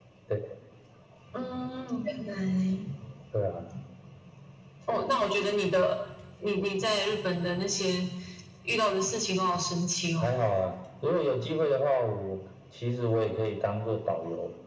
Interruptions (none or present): none